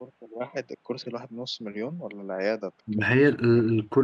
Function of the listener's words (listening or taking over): taking over